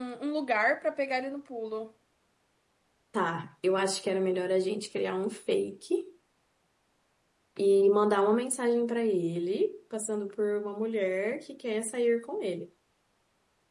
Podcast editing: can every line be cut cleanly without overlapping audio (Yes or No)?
Yes